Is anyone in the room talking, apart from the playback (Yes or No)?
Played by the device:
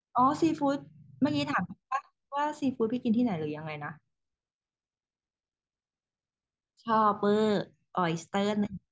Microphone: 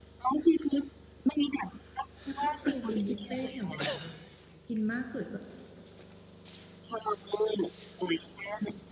Yes